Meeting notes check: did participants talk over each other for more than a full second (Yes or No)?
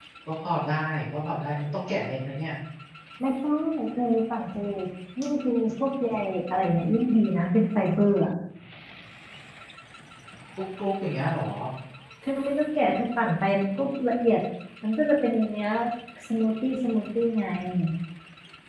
No